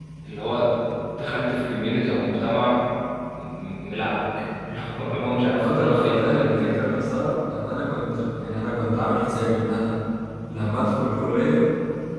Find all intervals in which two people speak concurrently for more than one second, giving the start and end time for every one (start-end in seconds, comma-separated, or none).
5.5-6.8